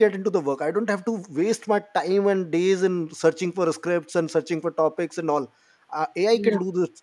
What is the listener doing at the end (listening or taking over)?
listening